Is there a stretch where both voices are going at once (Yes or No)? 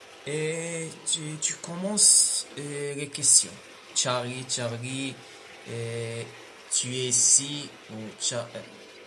No